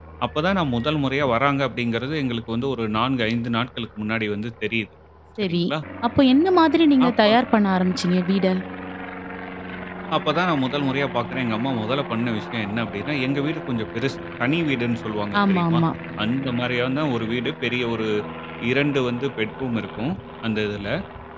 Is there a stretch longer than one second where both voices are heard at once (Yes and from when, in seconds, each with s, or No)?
No